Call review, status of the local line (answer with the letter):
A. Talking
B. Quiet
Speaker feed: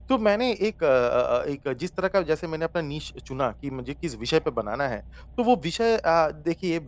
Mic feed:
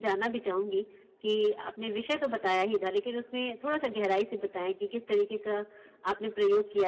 A